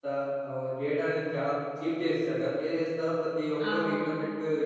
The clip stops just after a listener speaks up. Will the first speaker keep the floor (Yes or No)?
Yes